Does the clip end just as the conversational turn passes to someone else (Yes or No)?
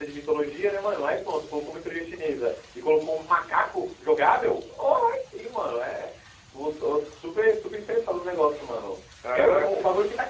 No